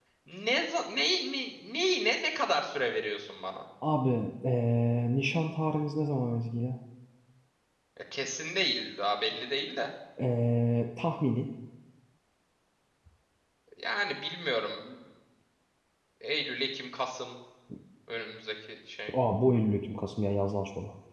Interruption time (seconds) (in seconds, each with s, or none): none